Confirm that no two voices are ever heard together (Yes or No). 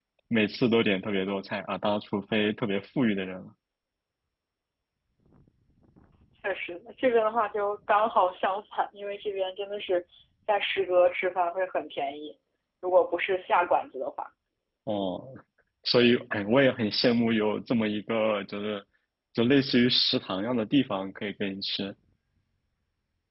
Yes